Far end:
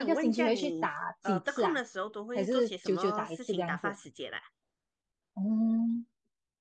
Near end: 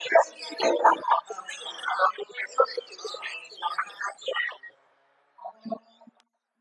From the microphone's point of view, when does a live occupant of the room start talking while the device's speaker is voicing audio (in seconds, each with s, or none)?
none